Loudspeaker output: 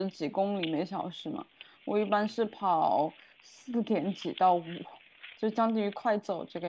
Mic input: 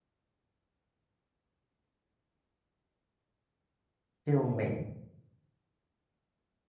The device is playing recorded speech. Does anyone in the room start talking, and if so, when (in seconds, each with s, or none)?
4.2 s